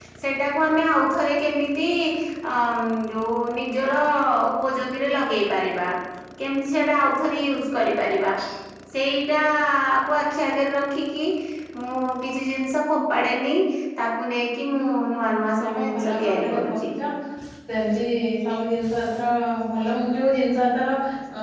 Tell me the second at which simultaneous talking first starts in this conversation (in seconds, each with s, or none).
15.5 s